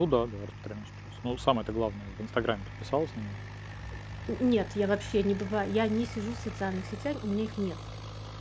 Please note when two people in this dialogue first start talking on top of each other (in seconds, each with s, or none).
none